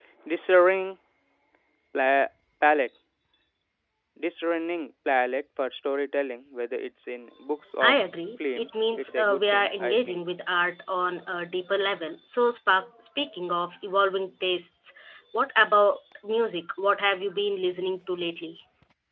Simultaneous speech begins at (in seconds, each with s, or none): 8.6 s